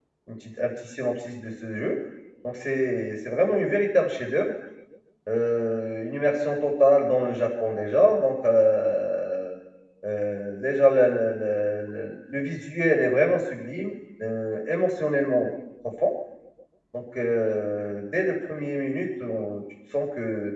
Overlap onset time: none

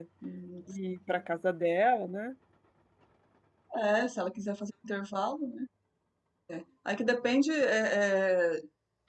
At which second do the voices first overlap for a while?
none

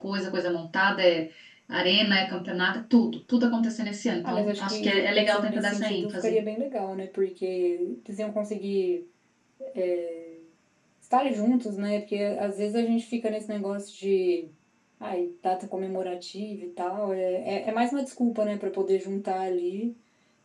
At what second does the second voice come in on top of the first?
4.2 s

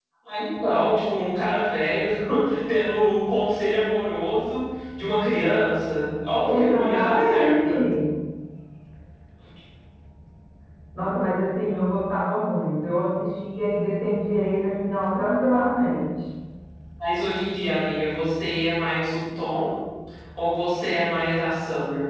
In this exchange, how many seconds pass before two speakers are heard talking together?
6.4 s

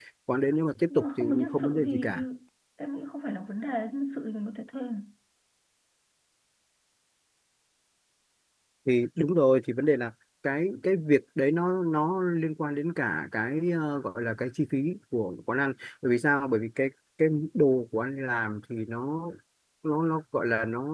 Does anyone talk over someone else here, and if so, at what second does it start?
0.9 s

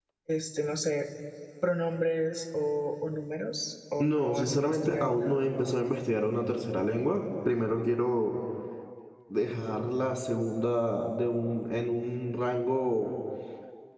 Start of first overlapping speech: 4.0 s

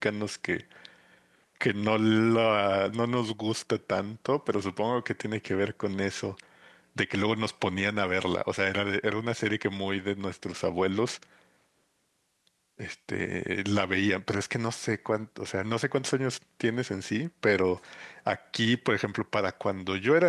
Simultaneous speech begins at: none

